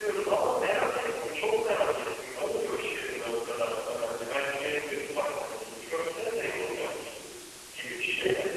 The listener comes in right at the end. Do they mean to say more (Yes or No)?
Yes